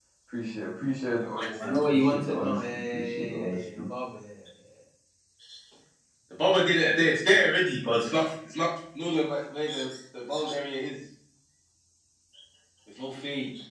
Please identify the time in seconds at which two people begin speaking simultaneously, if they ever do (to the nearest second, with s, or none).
1 s